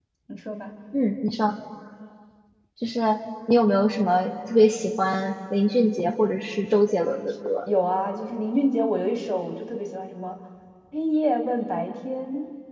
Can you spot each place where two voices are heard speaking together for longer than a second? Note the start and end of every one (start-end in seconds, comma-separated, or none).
none